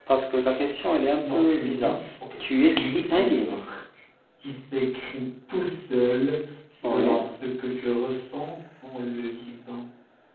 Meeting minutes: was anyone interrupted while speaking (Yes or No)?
Yes